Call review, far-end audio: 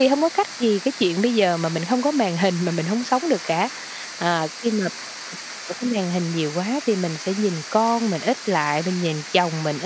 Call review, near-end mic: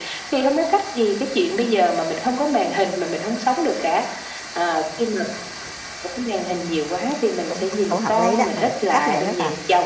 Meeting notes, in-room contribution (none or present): present